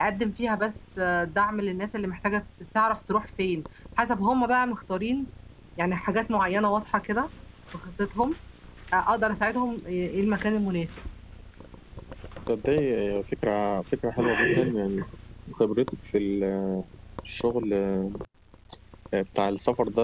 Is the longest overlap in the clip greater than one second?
No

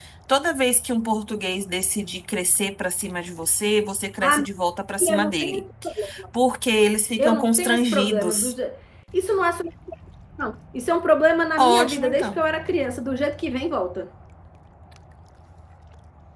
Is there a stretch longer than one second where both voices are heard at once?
Yes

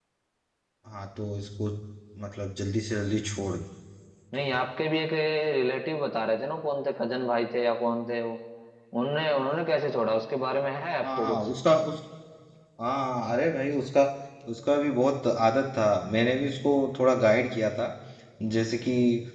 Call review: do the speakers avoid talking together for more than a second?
Yes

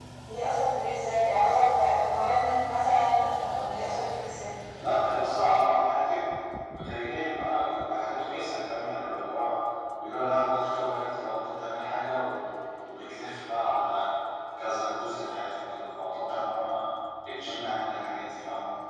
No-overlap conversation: Yes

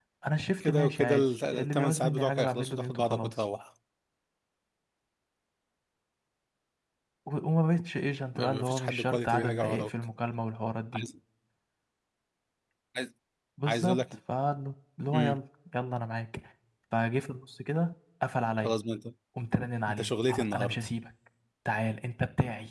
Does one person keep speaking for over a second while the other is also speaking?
Yes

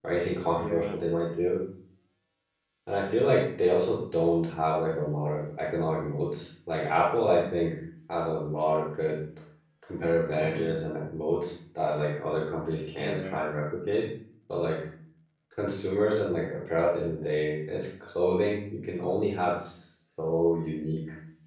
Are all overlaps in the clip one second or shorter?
Yes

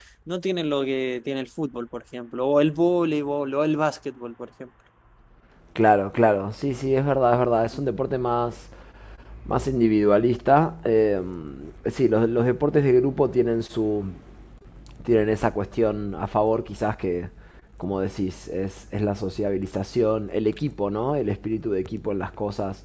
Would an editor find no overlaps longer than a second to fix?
Yes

